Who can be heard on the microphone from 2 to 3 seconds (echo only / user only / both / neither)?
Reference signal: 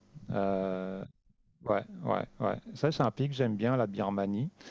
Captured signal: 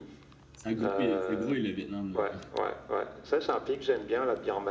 both